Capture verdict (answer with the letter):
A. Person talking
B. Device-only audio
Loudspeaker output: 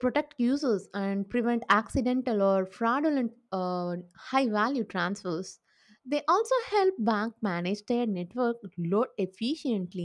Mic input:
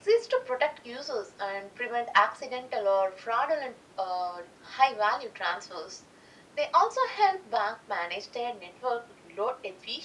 B